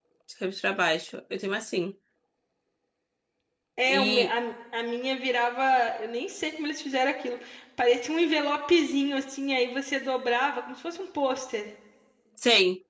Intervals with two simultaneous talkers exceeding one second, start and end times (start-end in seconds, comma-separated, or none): none